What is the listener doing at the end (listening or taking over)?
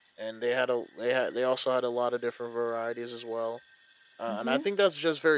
listening